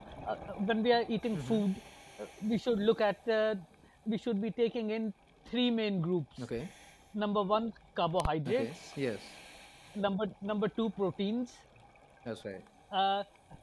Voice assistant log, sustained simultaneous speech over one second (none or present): none